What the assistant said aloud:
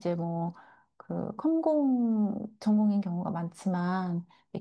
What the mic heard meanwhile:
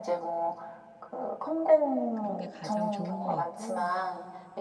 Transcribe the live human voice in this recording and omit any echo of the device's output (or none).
그런 게 가장 좋은 것 같고